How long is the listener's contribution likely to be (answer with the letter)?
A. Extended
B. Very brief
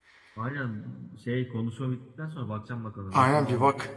A